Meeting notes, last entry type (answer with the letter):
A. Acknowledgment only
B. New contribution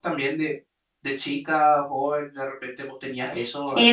B